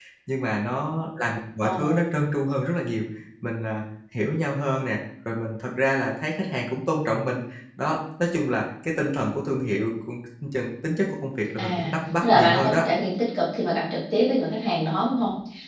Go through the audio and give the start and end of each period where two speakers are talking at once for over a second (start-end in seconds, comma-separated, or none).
11.6-12.8